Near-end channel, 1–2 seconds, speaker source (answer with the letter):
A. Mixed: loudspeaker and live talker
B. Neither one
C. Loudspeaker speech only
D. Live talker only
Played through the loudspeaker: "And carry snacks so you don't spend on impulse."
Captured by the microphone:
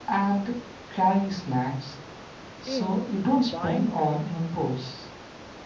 C